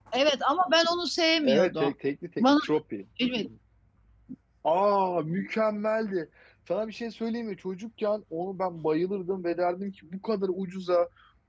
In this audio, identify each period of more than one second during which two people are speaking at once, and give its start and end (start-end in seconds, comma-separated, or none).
none